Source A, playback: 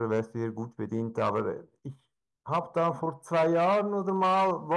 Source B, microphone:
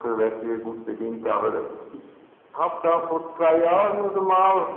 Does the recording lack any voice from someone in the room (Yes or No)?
Yes